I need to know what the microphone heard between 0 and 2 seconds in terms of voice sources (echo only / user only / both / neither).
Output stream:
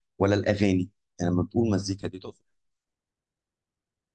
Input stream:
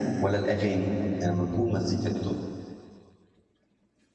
echo only